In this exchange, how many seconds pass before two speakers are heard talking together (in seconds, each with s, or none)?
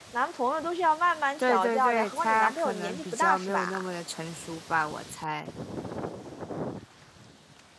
1.4 s